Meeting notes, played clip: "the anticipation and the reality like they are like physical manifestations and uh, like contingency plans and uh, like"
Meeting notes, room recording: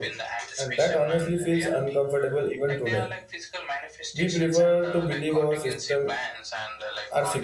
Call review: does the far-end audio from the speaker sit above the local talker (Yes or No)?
No